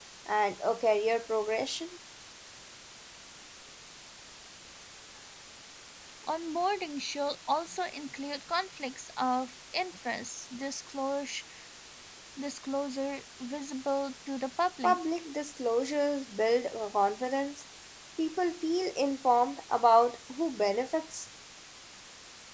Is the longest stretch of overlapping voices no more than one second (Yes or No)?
Yes